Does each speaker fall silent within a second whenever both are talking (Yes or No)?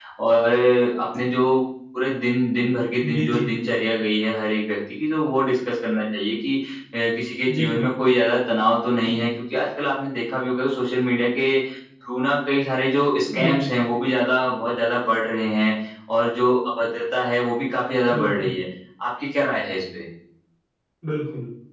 Yes